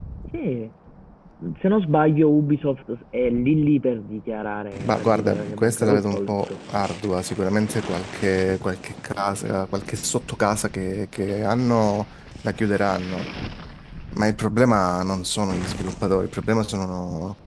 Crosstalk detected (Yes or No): Yes